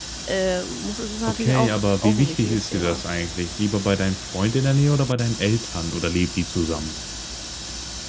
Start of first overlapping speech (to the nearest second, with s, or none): 1 s